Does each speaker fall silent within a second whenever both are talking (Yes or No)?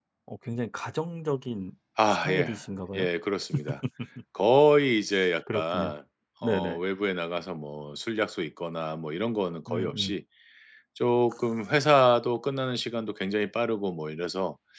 Yes